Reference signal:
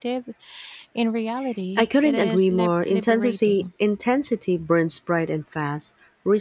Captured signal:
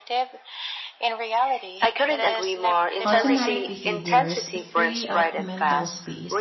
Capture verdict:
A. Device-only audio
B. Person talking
B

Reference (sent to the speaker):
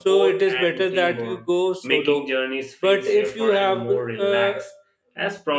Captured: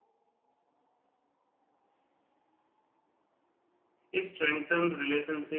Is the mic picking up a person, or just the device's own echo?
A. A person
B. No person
A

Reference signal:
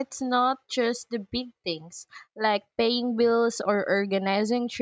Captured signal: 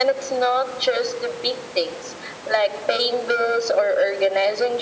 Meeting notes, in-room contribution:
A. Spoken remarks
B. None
B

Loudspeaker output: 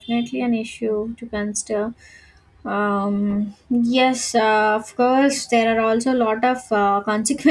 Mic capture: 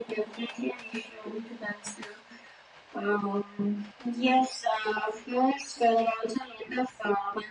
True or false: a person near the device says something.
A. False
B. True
A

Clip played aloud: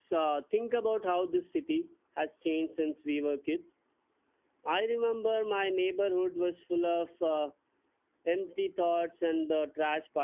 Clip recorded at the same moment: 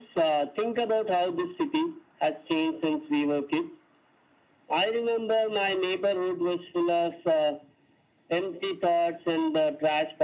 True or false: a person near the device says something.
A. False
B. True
A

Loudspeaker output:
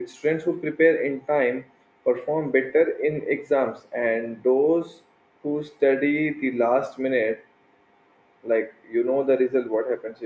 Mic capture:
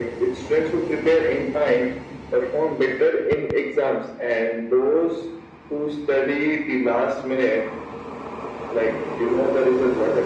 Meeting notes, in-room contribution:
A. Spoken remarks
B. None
B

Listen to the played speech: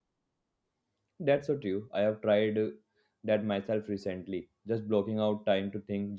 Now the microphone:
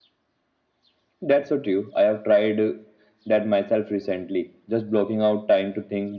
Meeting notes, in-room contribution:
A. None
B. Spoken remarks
A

